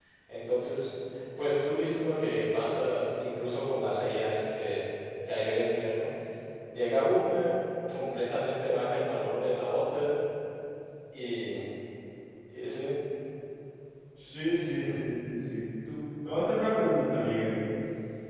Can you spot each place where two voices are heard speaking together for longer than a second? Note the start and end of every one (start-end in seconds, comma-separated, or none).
none